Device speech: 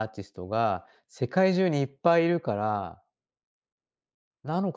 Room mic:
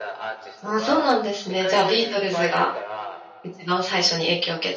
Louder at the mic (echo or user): user